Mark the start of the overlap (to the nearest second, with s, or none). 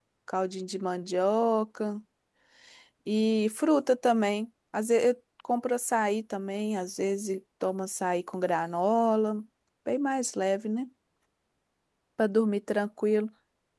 none